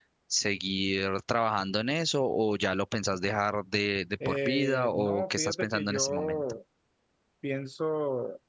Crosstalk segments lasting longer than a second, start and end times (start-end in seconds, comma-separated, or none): 4.2-6.4